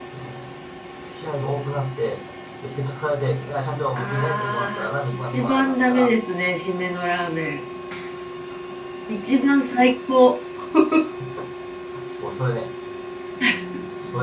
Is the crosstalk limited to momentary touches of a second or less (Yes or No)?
No